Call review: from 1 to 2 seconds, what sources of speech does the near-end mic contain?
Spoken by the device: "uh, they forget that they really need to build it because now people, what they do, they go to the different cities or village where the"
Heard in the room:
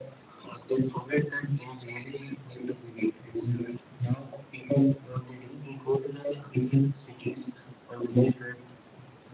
echo only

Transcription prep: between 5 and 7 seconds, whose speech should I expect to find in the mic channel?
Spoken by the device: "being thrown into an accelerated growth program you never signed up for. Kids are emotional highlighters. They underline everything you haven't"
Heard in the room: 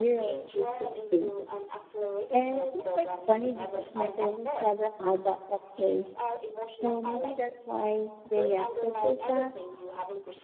both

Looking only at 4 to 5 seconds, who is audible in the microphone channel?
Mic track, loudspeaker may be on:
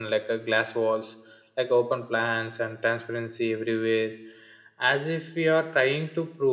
user only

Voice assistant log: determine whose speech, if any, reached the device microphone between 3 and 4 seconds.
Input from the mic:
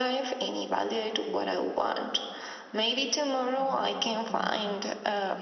both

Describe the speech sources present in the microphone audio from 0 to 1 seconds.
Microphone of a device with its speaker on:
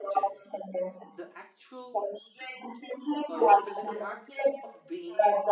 both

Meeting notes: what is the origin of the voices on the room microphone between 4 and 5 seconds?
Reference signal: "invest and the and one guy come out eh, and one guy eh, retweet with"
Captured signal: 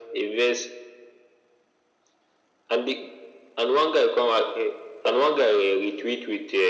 echo only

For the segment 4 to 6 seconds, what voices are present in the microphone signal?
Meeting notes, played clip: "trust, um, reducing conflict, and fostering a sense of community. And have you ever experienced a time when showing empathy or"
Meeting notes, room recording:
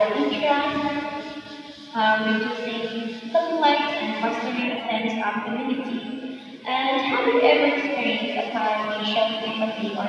echo only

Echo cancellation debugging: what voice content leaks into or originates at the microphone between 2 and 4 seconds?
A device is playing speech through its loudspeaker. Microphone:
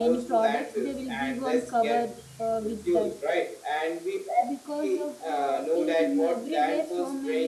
both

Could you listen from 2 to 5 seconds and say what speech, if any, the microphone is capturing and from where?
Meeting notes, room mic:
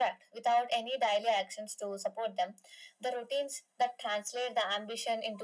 echo only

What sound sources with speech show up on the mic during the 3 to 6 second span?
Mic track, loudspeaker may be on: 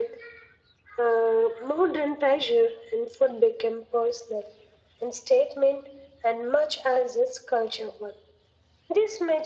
echo only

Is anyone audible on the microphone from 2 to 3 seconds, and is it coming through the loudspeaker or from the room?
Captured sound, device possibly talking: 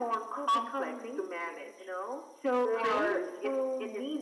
echo only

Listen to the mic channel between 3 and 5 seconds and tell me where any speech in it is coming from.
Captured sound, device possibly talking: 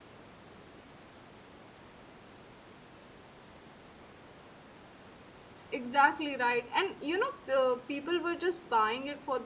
neither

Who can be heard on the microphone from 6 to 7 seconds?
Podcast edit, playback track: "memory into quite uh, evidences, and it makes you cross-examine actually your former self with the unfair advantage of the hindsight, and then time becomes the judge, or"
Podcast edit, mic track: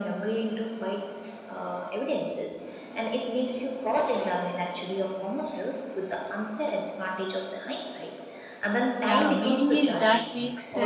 echo only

